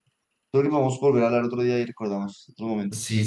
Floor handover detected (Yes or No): Yes